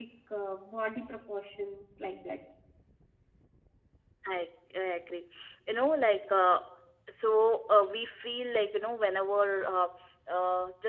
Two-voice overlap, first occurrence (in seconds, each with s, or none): none